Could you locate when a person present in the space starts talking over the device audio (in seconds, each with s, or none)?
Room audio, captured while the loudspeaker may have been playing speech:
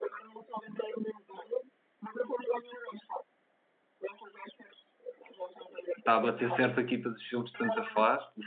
6.0 s